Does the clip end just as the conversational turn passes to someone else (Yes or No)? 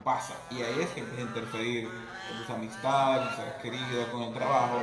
Yes